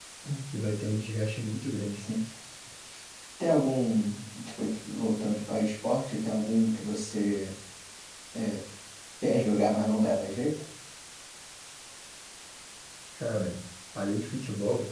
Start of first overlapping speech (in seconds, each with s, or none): none